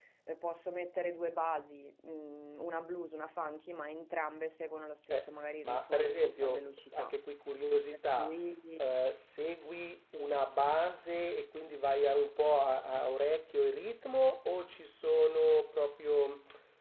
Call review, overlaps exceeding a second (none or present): present